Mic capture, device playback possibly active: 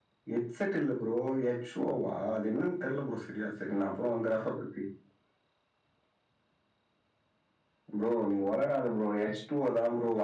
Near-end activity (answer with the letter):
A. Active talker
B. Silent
B